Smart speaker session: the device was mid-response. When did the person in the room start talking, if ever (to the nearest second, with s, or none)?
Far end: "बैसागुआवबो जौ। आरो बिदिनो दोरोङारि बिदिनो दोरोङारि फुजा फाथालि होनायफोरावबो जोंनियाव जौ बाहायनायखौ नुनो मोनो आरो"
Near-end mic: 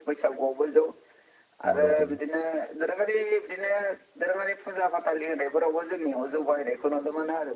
2 s